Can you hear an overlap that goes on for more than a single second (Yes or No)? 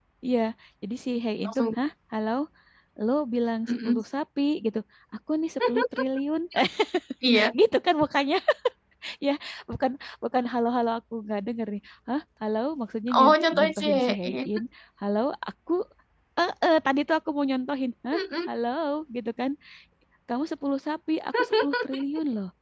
Yes